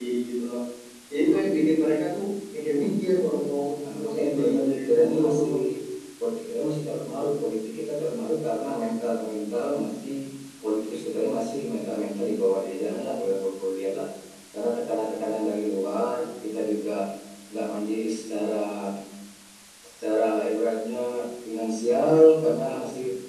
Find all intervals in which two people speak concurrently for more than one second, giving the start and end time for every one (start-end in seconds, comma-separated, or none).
3.8-5.5